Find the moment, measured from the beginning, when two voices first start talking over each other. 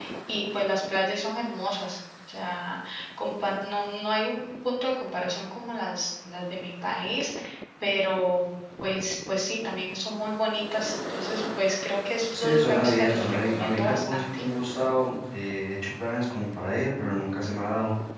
12.3 s

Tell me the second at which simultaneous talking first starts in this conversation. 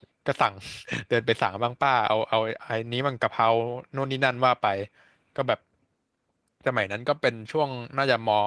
none

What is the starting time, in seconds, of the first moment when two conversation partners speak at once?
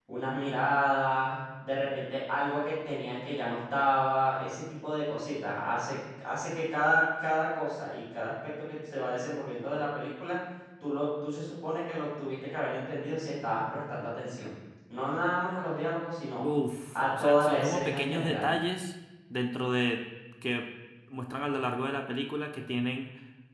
16.9 s

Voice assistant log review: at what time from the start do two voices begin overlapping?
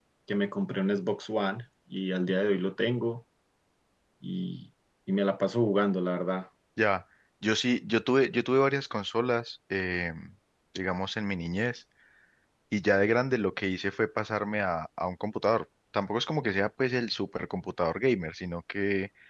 none

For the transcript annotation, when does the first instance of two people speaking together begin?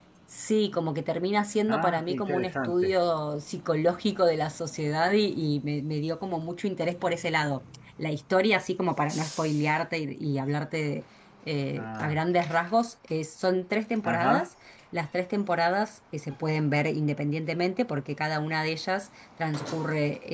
1.7 s

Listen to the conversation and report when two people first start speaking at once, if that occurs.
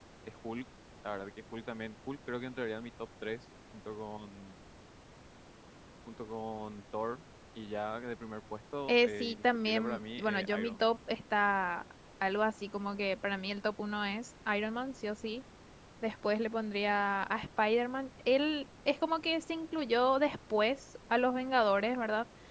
8.9 s

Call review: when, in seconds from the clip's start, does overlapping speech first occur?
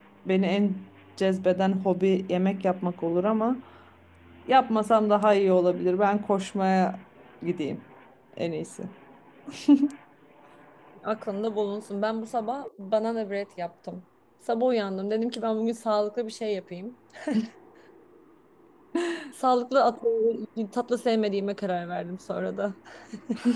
none

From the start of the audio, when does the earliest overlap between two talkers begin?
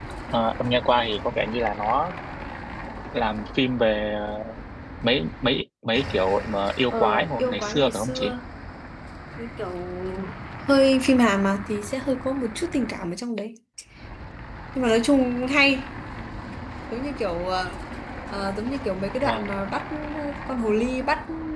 6.9 s

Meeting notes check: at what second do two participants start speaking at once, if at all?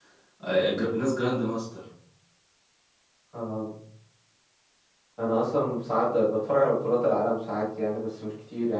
none

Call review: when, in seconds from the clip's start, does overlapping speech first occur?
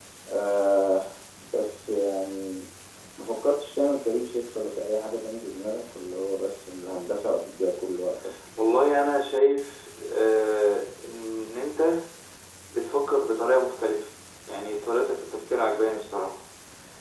none

